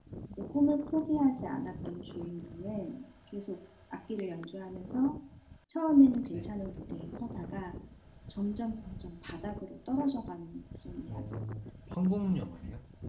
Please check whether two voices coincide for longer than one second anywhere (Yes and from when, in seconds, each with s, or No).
No